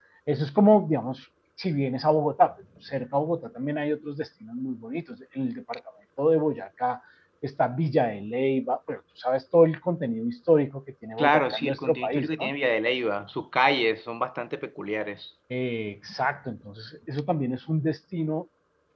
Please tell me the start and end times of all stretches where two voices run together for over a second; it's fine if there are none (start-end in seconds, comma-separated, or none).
11.2-12.5